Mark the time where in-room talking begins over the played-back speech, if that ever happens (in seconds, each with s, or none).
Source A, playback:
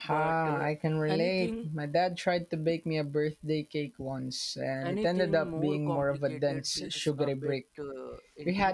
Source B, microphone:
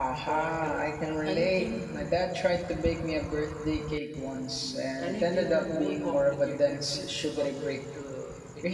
none